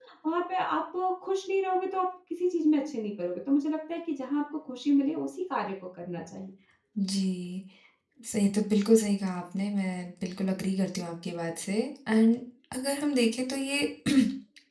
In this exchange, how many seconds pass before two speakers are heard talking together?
none

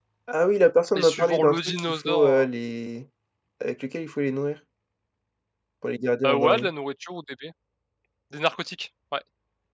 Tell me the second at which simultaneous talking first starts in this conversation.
0.9 s

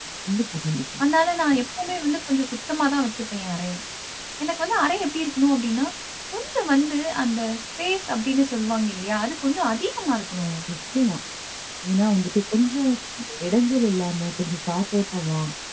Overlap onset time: none

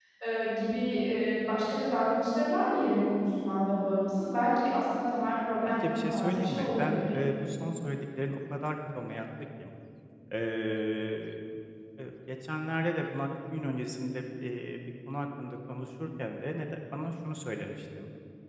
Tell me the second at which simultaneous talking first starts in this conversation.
5.6 s

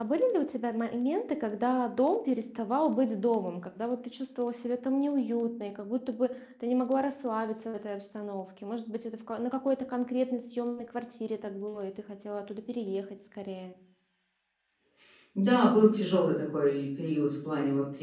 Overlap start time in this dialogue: none

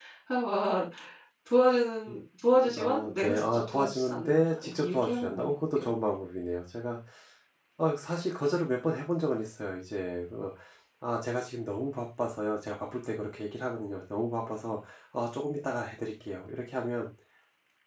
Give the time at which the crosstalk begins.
2.8 s

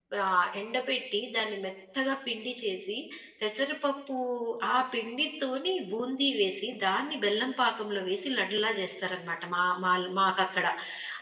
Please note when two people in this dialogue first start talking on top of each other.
none

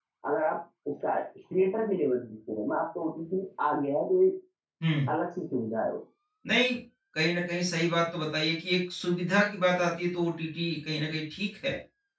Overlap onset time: none

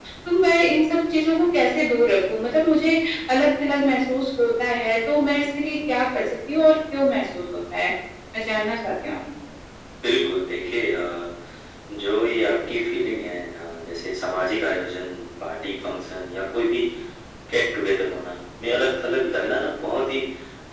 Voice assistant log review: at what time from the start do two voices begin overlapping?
none

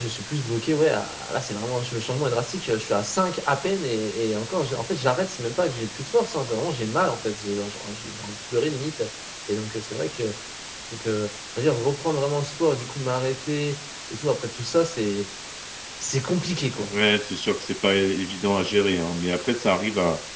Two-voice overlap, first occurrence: none

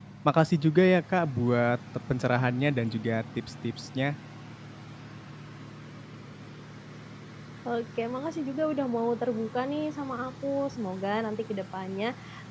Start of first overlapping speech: none

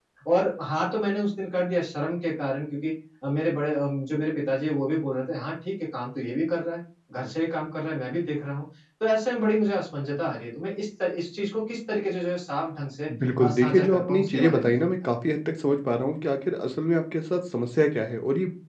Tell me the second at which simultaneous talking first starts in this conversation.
13.4 s

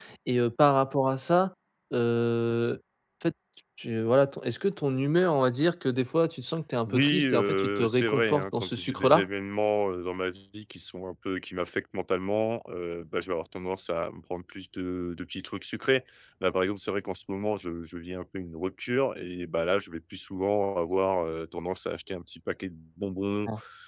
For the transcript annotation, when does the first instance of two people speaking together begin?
6.8 s

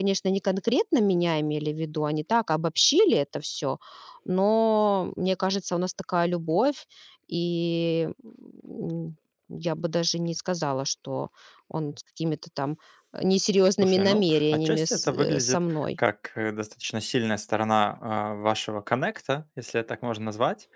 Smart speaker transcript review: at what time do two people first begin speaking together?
13.8 s

